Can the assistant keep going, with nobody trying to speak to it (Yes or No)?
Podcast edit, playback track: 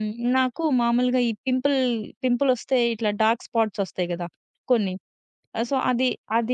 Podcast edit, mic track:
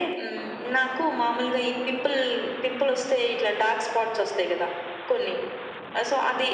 Yes